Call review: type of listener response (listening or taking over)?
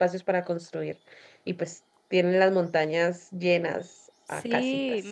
taking over